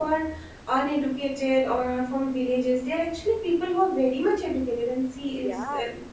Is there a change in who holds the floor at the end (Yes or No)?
No